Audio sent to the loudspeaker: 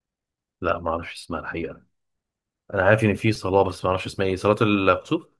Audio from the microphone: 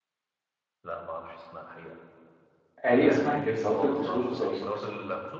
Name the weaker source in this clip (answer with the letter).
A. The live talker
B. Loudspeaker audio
B